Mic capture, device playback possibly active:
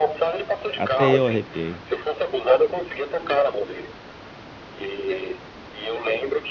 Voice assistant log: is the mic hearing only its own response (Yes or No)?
No